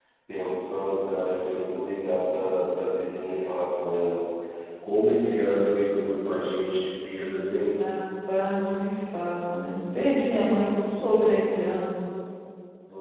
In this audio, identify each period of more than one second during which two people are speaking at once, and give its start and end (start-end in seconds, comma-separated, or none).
none